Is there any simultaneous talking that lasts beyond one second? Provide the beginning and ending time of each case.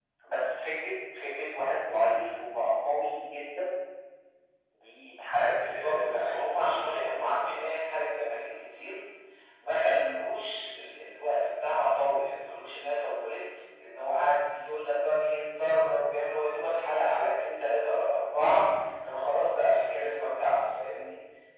5.5-7.7

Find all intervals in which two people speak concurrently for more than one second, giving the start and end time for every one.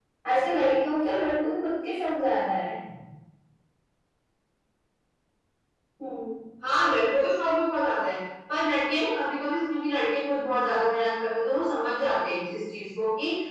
none

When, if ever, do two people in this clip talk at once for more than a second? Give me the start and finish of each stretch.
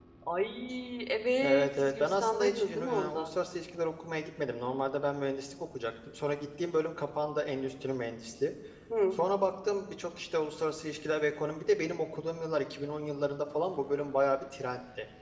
1.4-3.3

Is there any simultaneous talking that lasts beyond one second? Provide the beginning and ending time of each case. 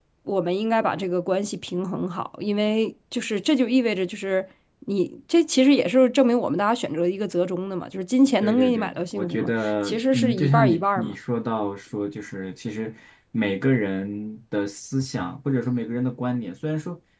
8.4-11.1

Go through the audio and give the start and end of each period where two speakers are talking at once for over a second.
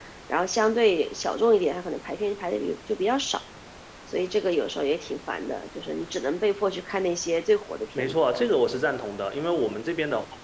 none

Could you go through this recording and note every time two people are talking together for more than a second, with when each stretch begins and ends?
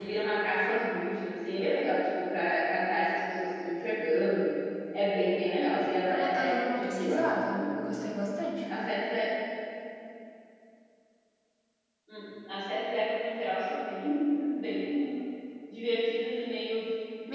6.1-7.9

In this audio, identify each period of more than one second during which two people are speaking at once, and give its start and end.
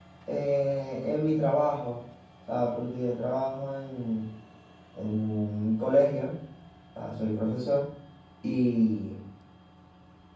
none

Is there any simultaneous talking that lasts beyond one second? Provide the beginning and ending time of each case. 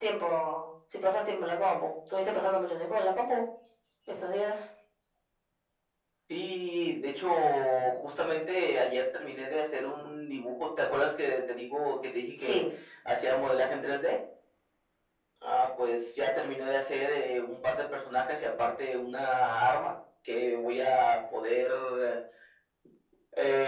none

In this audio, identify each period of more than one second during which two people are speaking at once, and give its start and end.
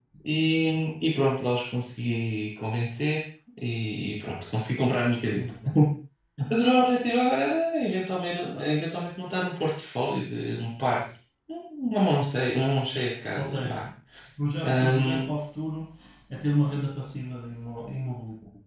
none

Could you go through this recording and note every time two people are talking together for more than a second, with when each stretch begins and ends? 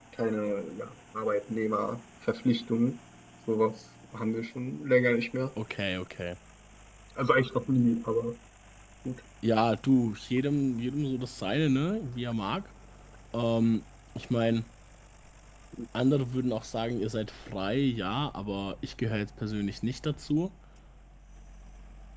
none

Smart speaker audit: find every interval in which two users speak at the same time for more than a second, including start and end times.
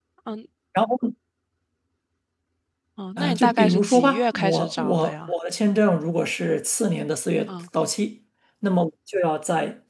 3.2-5.3

